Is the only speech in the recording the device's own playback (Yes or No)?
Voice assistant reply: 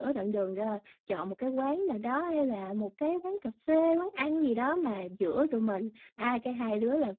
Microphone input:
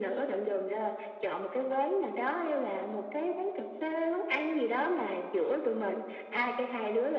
Yes